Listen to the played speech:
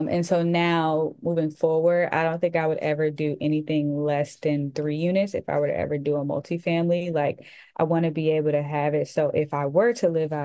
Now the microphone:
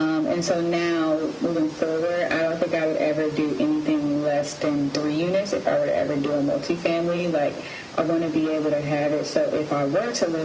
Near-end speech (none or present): none